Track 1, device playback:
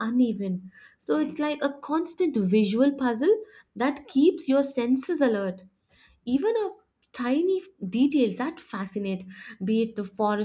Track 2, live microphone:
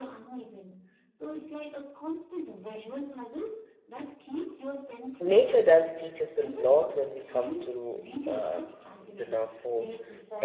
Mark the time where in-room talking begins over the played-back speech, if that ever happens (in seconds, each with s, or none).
5.2 s